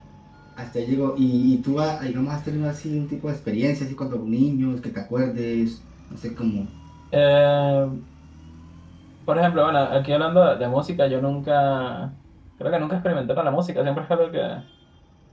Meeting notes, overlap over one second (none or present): none